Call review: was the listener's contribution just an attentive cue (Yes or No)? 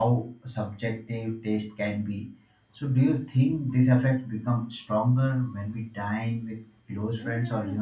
No